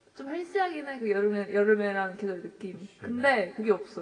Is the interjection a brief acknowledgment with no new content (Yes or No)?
Yes